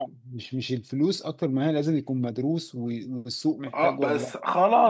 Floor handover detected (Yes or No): Yes